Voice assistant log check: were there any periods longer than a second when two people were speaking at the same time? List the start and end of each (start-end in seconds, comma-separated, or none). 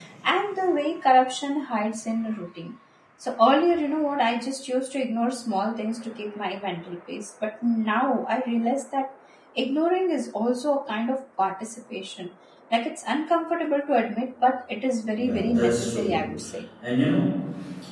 15.2-16.4